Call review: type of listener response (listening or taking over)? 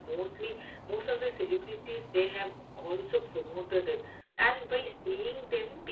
listening